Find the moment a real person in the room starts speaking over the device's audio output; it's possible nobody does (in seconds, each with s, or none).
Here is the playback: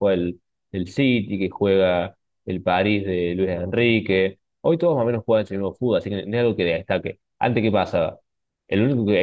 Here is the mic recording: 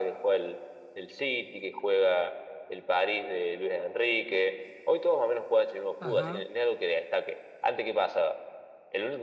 6.0 s